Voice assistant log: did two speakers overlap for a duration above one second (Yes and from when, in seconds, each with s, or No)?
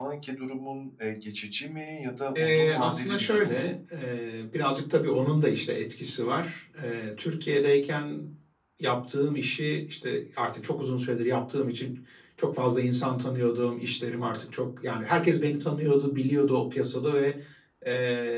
Yes, from 2.4 s